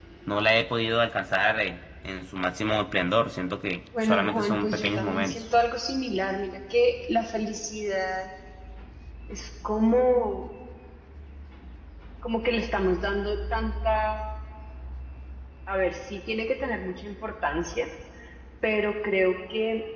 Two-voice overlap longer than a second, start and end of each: 4.0-5.4

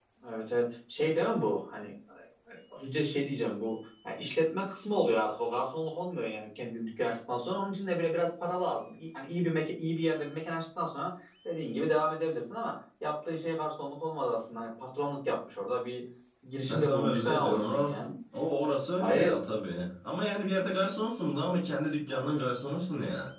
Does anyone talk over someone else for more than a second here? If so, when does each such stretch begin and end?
16.7-17.9

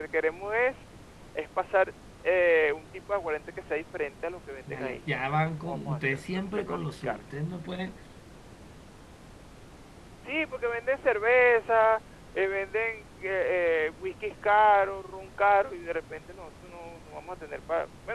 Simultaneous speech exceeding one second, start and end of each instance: 4.7-7.2

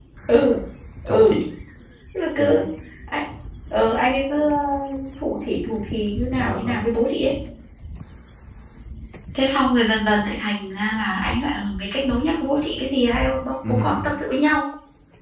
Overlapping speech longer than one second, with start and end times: none

